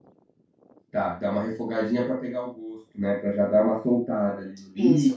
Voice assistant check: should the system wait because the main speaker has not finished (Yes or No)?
No